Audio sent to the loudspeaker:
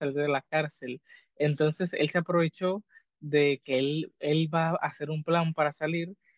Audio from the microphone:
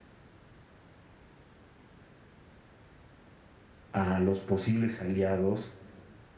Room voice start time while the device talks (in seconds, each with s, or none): 3.9 s